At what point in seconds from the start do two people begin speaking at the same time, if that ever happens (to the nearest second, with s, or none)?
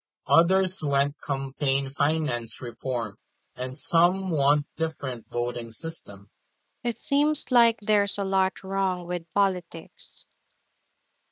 none